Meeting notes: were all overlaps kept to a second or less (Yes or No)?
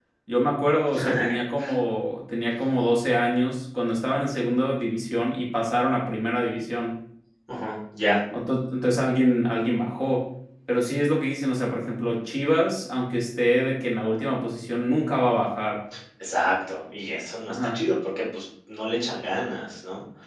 Yes